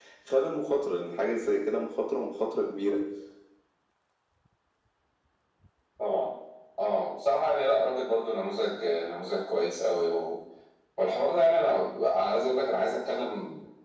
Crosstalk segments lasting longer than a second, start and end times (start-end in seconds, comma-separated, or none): none